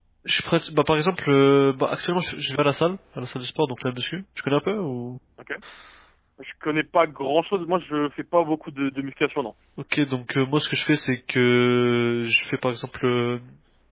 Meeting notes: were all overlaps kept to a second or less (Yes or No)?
Yes